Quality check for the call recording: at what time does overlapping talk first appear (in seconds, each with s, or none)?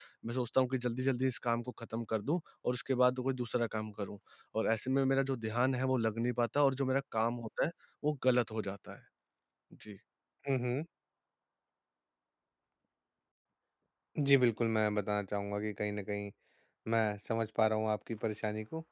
none